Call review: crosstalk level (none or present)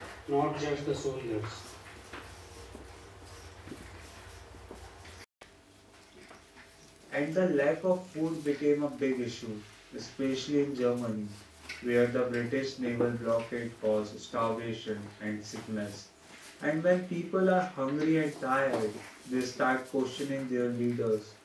none